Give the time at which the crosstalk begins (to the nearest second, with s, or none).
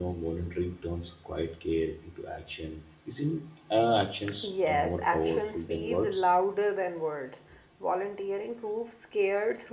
4 s